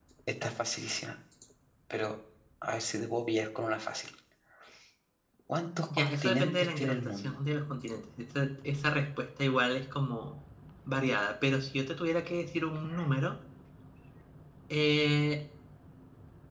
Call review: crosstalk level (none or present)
present